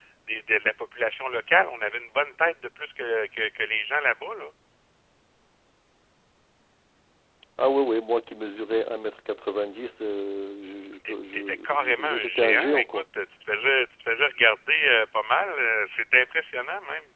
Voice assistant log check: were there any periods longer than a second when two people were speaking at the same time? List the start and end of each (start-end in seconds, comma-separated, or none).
11.1-13.0